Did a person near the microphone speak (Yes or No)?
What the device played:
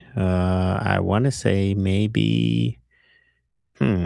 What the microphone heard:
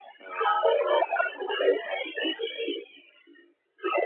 No